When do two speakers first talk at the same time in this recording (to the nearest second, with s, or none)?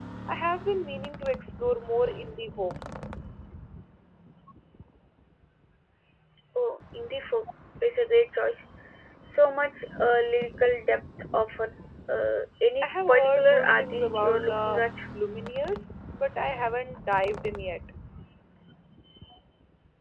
13 s